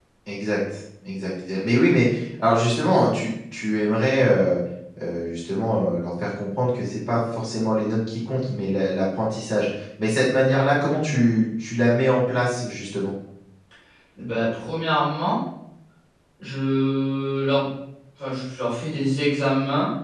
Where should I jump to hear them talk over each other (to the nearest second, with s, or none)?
none